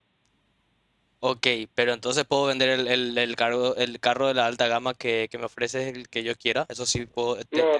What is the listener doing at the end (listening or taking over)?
taking over